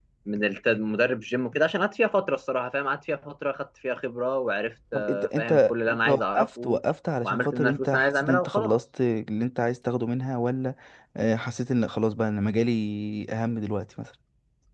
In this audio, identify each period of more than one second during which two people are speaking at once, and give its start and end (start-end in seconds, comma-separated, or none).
4.9-6.8, 7.2-8.8